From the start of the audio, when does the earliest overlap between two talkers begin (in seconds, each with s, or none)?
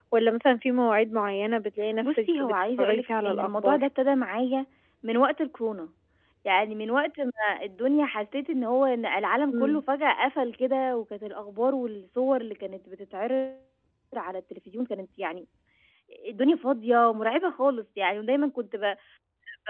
2.0 s